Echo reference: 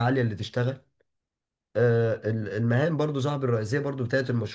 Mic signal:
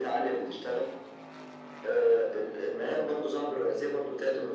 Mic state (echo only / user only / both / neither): echo only